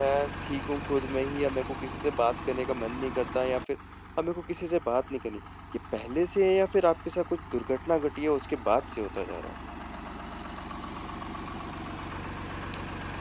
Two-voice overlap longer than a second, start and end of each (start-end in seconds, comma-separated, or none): none